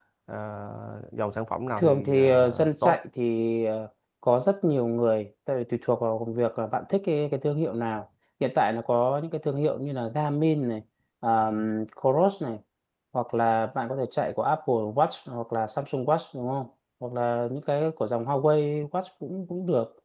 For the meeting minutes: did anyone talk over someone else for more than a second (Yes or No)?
Yes